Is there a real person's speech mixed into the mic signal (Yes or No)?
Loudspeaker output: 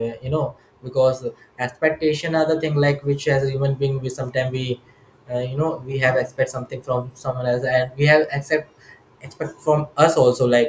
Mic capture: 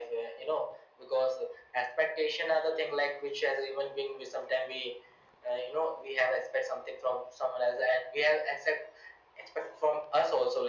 No